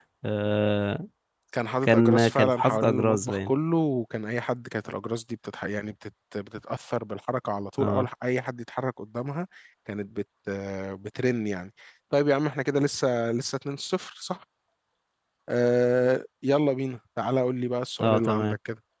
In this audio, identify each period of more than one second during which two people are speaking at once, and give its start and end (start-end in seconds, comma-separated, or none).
1.8-3.5